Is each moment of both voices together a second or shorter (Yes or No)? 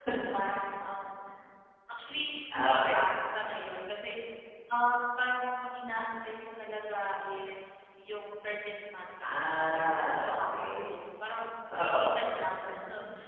No